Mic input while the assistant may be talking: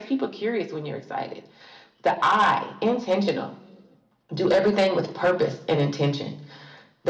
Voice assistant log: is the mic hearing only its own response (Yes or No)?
Yes